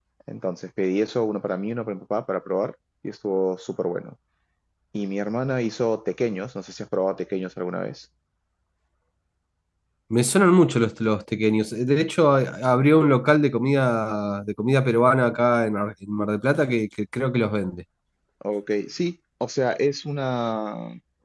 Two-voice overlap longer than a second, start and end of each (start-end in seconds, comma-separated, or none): none